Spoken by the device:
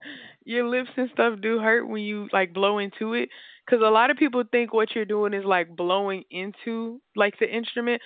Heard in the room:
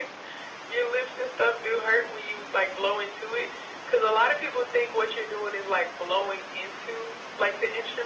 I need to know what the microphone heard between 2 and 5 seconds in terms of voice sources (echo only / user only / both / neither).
echo only